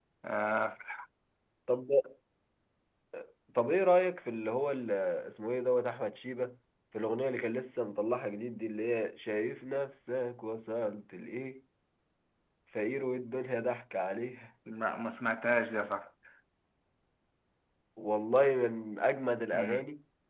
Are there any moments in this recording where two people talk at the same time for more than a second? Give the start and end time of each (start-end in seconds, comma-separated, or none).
none